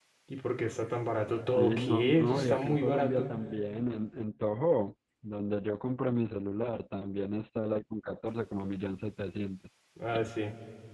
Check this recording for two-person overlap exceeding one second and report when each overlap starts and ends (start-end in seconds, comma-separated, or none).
1.5-3.3